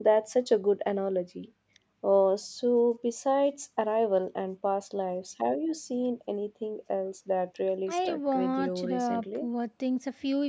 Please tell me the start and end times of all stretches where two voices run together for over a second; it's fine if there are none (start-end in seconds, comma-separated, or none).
7.9-9.5